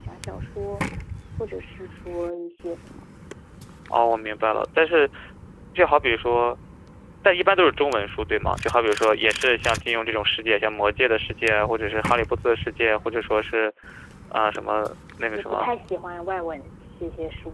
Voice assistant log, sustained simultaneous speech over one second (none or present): none